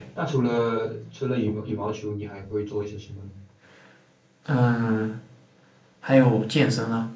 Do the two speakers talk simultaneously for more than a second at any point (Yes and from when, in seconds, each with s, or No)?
No